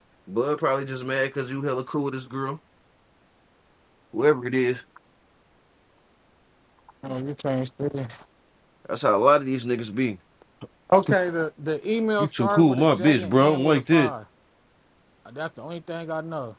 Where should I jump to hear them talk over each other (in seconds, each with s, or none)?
12.2 s